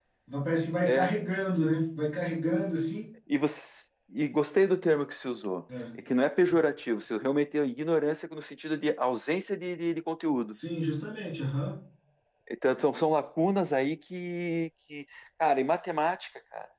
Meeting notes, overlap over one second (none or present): none